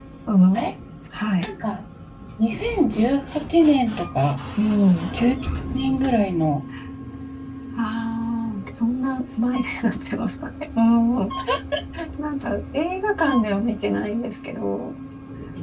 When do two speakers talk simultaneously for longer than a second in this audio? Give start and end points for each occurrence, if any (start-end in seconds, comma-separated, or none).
none